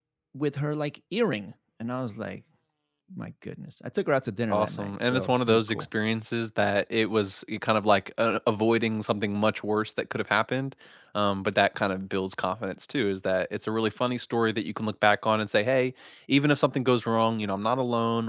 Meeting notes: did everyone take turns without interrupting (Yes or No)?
No